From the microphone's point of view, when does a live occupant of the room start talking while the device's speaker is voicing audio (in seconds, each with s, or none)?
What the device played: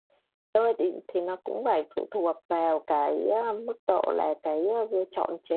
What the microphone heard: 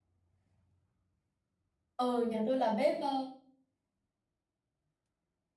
2.0 s